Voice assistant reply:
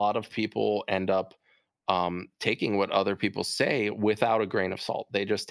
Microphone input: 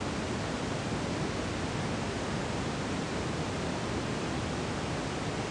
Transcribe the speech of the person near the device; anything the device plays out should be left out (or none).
none